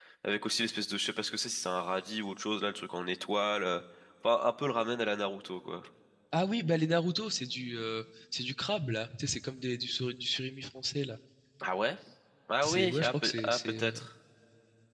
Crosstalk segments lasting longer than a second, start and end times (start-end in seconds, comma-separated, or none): 12.6-14.0